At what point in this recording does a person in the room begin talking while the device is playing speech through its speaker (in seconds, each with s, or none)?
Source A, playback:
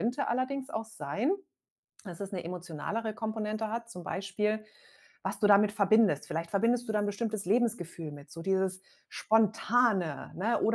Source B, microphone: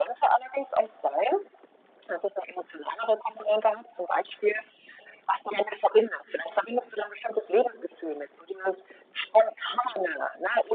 none